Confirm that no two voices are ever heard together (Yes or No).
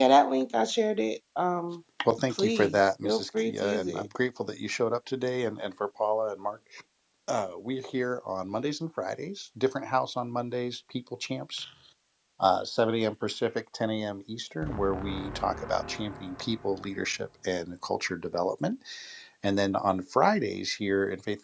No